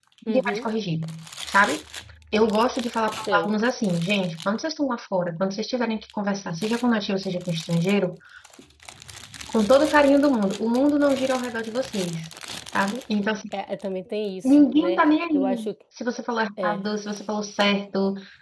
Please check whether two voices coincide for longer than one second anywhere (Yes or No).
Yes